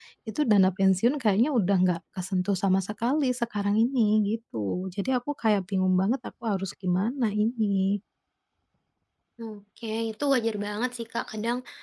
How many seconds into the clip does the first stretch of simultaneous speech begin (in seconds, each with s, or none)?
none